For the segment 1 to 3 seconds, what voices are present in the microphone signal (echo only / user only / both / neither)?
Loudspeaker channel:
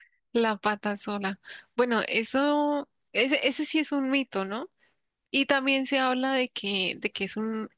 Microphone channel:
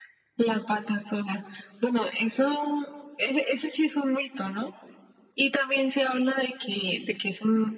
echo only